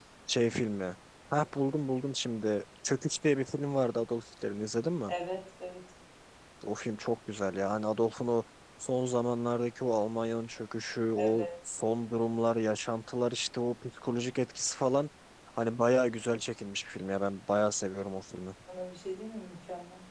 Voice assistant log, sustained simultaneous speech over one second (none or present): none